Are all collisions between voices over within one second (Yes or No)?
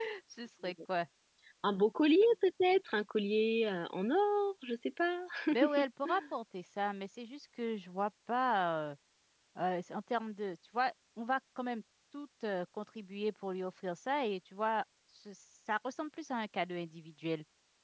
Yes